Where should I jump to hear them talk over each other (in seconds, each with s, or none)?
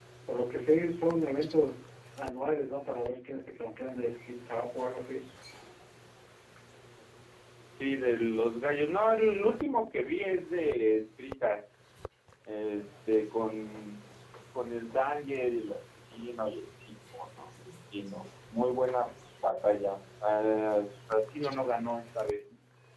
none